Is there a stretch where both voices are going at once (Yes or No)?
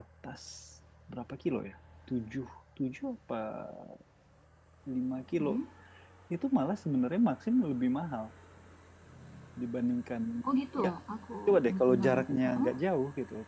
Yes